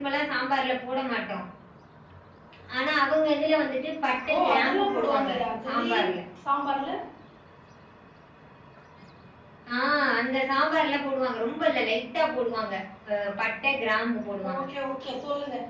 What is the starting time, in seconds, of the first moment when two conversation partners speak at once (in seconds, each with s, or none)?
4.1 s